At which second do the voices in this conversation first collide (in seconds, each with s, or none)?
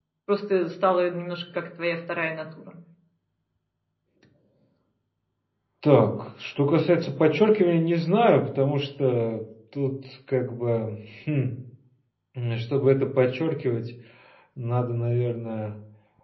none